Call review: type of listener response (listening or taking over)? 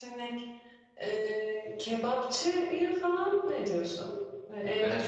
listening